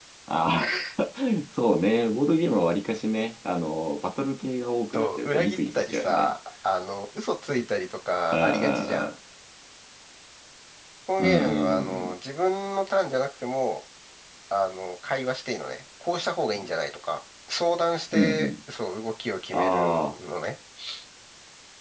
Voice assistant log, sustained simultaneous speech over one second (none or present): present